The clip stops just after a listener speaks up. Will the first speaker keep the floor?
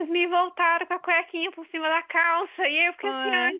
Yes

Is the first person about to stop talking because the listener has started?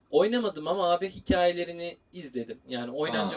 Yes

